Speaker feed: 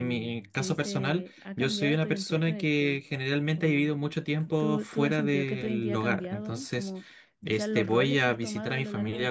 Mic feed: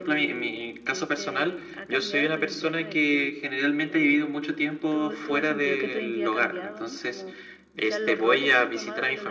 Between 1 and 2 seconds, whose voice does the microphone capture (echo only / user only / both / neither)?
echo only